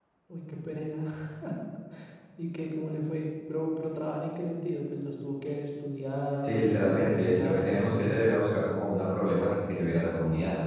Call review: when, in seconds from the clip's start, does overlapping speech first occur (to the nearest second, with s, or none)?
6 s